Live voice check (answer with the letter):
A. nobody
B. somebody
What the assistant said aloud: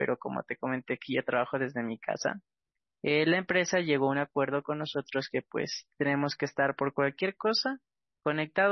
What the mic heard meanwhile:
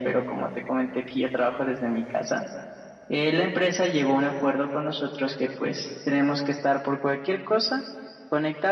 A